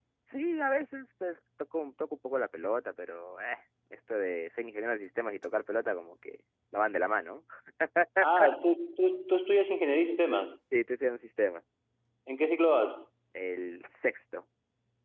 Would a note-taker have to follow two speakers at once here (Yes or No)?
No